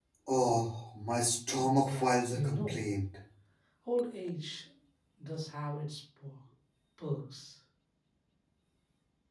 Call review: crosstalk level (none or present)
present